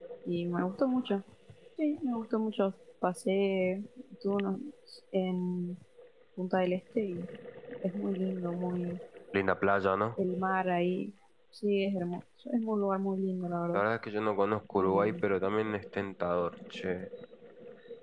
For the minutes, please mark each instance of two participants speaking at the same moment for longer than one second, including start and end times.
none

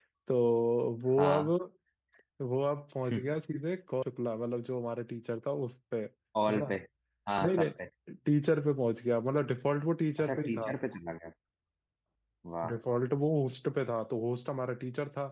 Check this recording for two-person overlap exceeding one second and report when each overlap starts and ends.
none

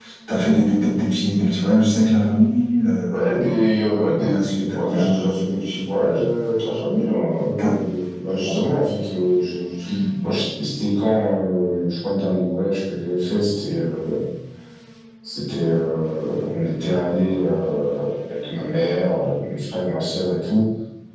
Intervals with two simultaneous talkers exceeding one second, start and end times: 3.9-5.2

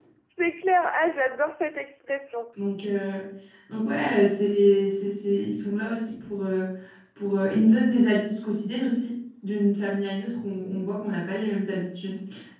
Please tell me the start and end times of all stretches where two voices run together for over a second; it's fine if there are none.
none

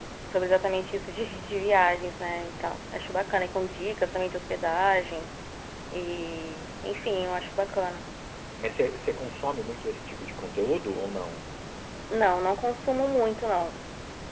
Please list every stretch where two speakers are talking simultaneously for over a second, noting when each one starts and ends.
none

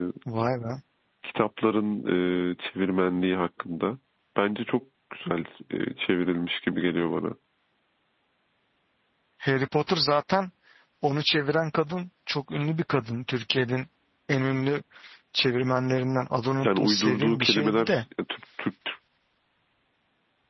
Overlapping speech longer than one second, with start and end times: 16.6-18.0

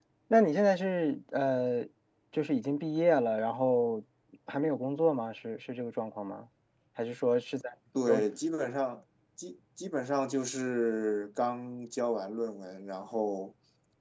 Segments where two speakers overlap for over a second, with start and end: none

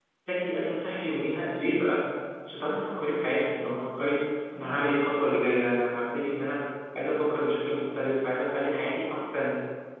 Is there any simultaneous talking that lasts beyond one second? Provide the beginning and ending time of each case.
none

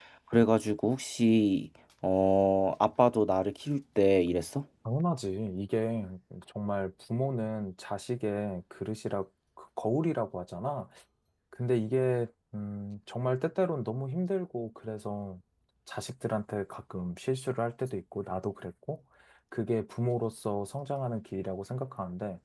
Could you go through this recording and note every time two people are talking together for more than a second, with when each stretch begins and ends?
none

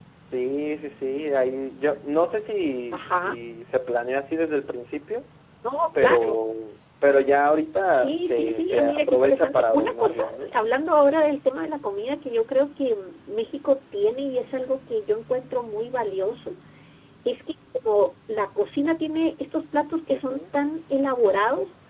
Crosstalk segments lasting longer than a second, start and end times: 8.0-10.5

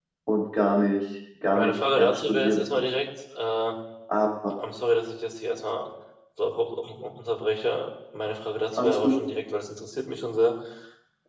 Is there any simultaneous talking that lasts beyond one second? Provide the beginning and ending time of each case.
1.5-2.8

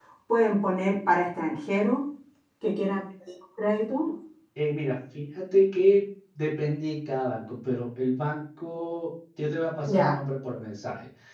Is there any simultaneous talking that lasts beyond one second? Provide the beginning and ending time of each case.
none

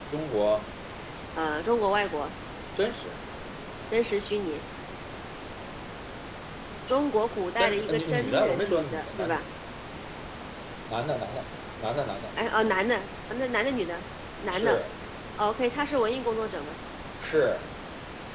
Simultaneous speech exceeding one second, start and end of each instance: 7.6-9.4

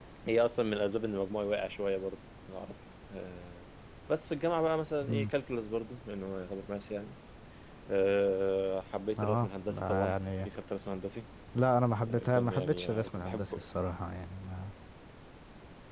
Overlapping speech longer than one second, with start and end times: 9.2-10.5, 12.0-13.6

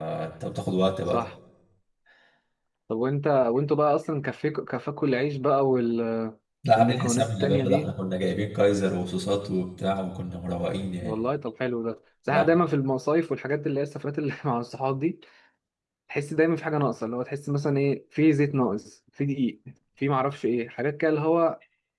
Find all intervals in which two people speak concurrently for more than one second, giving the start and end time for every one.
6.8-8.0

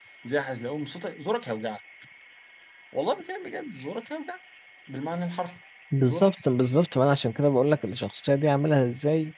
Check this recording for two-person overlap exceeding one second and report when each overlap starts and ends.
none

